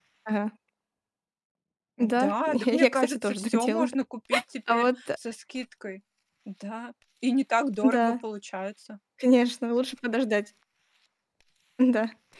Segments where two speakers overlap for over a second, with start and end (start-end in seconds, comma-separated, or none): 2.2-3.9